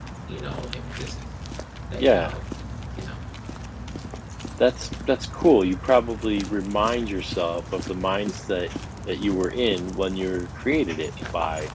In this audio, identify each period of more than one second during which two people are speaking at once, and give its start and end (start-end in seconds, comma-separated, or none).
none